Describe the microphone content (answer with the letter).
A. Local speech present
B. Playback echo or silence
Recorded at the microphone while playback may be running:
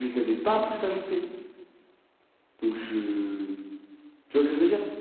B